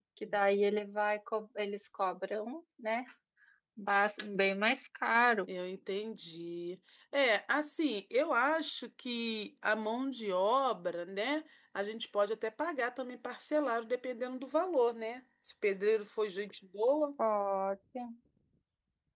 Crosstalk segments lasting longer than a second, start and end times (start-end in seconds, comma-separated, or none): none